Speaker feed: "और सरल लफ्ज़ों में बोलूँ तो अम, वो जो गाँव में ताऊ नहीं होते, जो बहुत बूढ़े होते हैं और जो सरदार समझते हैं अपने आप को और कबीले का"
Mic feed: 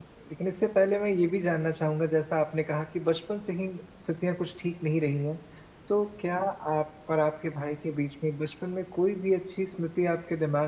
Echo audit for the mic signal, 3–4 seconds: user only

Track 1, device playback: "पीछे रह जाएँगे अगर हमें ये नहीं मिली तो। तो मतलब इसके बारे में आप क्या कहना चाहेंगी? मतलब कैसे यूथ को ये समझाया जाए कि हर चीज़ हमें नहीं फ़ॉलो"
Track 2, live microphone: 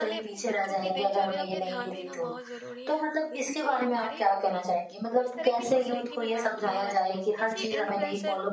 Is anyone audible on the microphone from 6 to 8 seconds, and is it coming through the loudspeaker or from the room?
both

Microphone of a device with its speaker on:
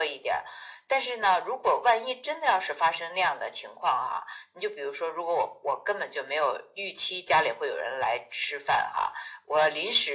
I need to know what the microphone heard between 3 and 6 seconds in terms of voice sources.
echo only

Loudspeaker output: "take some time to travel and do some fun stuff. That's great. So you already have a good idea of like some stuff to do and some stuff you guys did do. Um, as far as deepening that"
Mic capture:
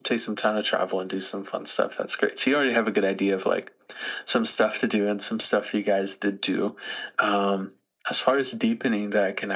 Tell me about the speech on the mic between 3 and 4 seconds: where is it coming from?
echo only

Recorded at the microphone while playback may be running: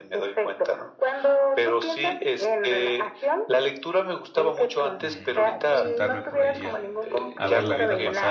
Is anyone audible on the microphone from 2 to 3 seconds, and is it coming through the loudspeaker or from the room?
echo only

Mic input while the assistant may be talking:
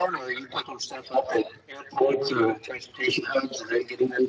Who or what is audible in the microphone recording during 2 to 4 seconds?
echo only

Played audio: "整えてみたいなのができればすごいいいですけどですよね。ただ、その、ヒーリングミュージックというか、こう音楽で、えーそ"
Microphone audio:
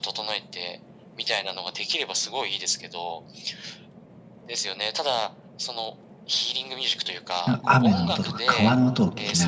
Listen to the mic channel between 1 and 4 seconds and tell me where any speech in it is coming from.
echo only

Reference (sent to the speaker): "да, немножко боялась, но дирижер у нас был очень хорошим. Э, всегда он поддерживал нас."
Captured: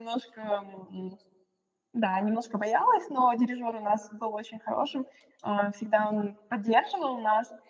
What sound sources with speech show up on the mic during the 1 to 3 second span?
echo only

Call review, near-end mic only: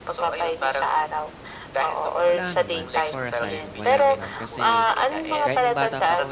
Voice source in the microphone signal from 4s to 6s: both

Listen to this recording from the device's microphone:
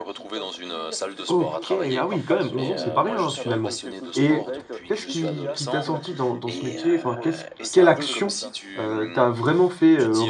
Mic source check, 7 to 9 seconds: both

